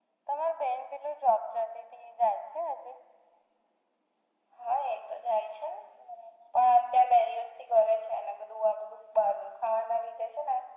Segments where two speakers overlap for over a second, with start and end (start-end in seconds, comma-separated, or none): none